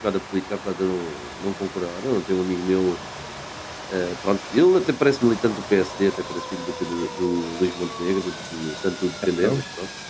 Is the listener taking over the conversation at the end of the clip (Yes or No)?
No